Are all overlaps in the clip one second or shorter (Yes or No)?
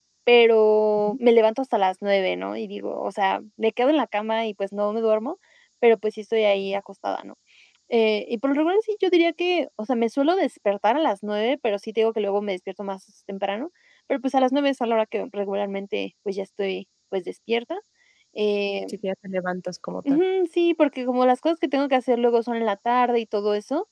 Yes